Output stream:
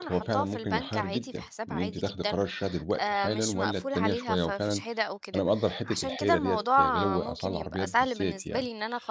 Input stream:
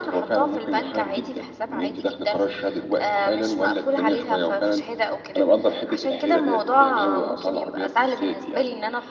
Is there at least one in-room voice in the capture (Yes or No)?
No